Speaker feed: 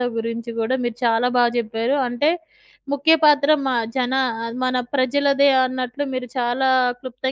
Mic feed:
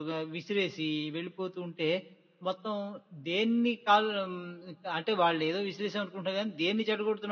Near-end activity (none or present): present